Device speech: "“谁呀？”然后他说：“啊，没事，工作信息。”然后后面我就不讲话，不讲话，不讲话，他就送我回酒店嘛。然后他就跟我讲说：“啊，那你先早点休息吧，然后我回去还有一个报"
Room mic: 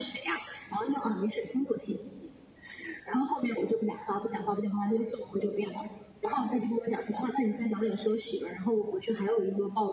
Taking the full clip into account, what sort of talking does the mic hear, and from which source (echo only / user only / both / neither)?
echo only